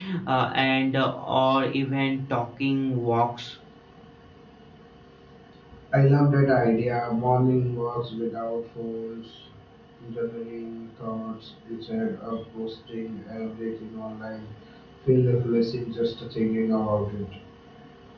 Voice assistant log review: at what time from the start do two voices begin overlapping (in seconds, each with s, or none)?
none